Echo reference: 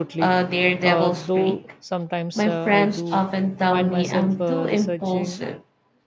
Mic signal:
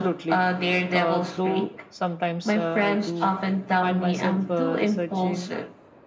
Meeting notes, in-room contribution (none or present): none